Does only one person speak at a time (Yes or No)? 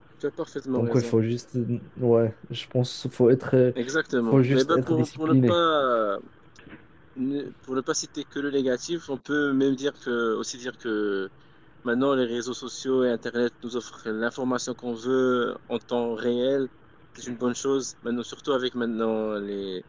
No